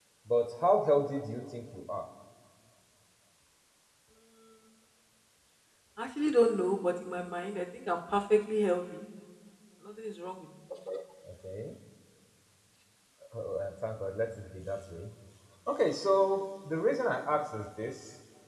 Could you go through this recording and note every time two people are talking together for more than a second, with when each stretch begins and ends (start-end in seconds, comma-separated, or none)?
none